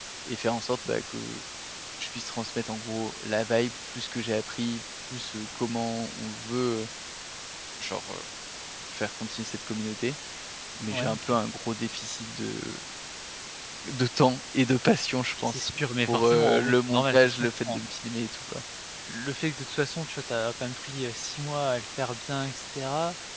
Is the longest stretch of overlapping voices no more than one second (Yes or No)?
No